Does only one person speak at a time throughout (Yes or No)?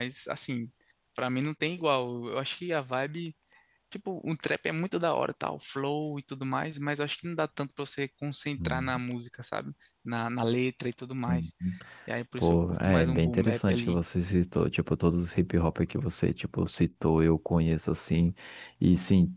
No